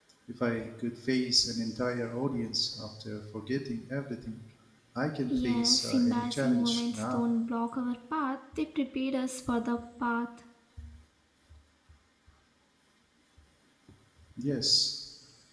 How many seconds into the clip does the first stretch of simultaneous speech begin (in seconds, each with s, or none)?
5.3 s